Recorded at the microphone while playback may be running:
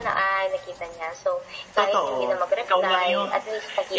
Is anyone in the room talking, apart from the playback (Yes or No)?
Yes